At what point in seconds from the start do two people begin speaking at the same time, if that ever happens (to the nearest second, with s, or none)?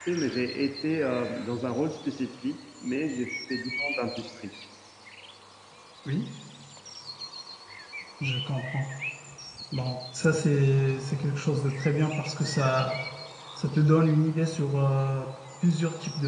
none